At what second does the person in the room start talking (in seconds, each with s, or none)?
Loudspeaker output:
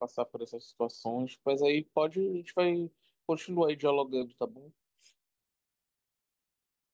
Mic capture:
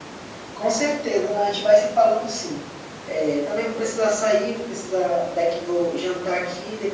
0.5 s